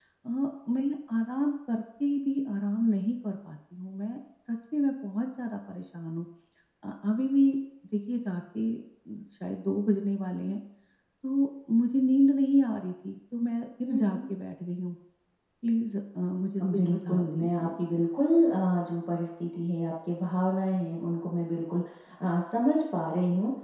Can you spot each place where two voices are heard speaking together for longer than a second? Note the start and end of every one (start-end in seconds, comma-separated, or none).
16.6-18.0